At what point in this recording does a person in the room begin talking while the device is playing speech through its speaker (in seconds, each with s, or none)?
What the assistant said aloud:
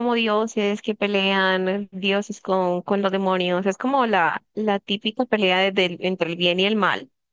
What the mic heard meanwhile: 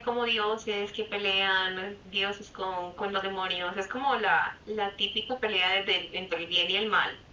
none